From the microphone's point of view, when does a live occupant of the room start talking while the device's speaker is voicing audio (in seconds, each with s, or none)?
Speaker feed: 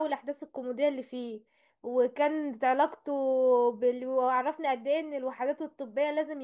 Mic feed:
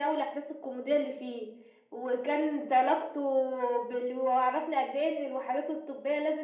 none